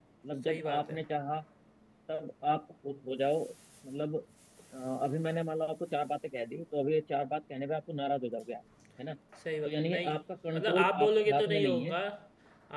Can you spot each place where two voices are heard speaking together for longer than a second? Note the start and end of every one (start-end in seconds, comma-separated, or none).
10.6-12.0